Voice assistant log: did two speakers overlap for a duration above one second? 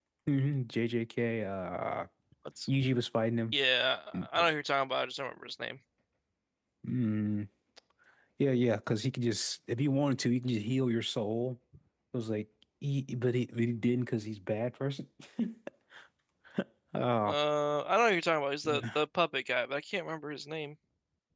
No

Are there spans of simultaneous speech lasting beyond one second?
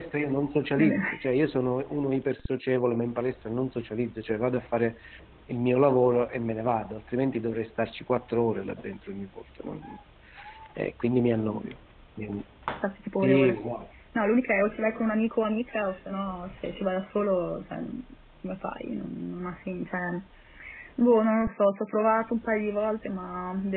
No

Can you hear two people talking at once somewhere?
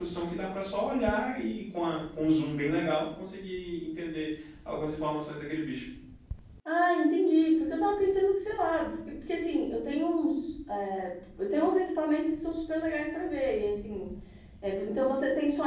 No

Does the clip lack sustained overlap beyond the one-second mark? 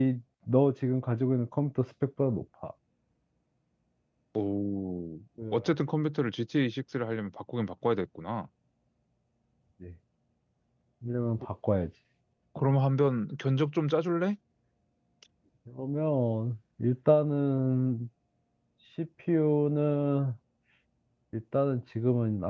Yes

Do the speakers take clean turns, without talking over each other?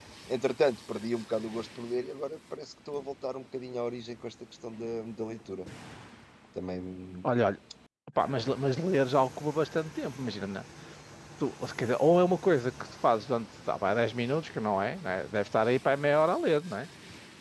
Yes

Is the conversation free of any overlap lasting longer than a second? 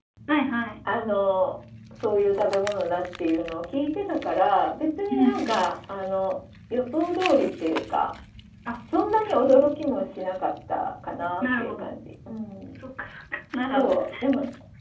Yes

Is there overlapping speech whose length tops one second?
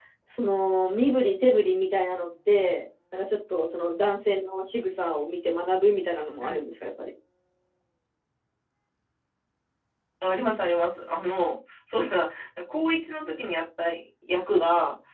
No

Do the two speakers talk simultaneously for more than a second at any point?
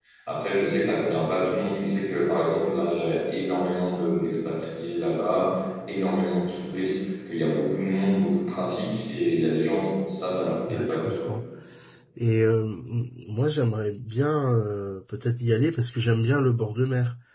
No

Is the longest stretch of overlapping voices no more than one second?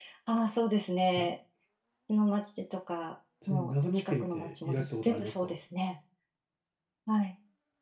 No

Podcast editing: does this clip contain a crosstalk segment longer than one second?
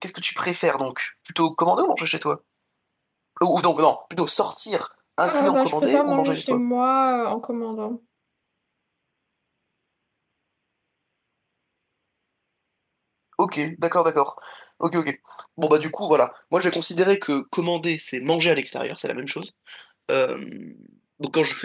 Yes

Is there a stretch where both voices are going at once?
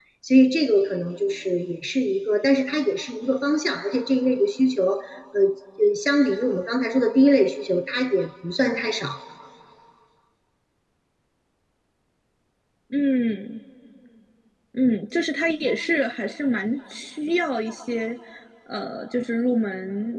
No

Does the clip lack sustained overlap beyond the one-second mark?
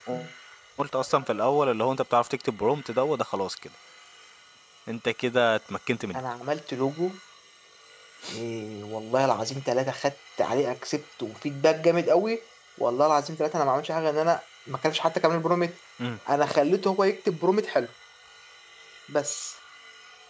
Yes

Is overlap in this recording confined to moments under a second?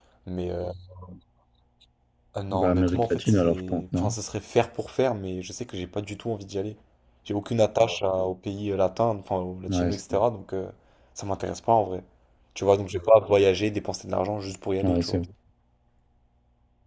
No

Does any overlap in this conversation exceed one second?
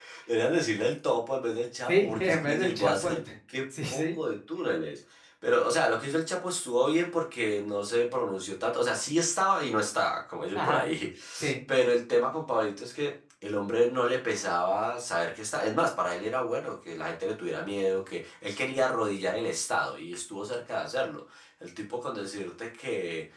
Yes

